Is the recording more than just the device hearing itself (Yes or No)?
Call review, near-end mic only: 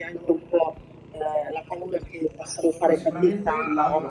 Yes